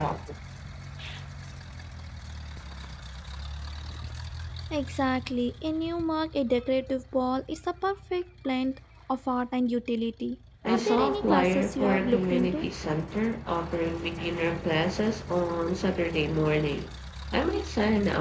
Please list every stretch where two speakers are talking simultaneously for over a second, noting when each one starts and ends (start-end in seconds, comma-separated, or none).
10.7-12.7